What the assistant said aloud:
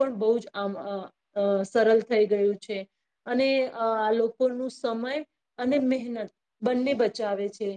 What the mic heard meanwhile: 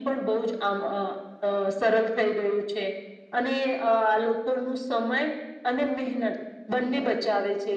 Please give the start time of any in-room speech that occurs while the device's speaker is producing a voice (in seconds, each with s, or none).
none